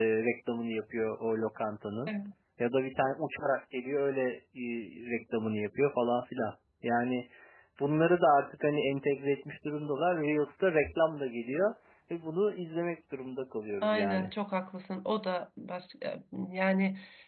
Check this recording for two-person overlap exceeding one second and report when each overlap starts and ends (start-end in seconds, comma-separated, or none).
none